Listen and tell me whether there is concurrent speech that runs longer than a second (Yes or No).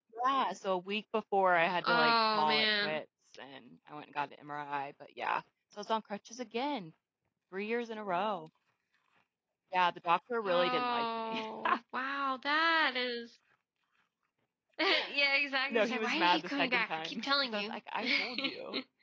Yes